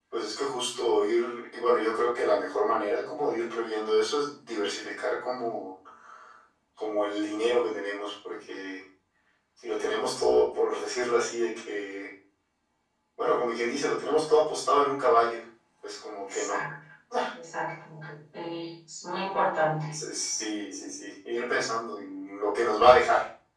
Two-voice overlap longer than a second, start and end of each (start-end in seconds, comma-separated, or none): none